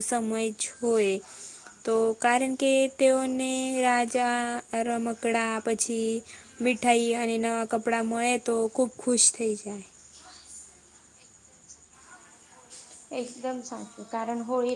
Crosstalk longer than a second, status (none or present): none